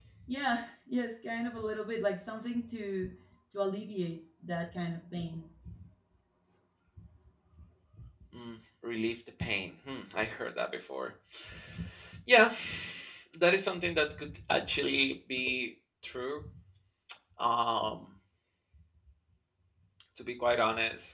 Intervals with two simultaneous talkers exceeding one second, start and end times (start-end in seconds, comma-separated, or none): none